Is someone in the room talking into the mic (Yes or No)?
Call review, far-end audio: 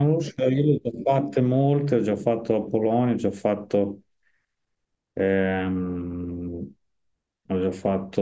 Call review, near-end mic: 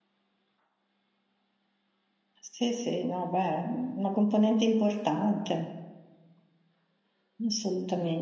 Yes